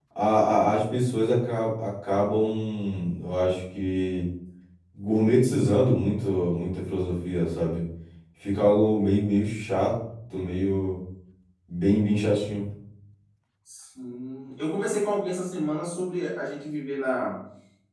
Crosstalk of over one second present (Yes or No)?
No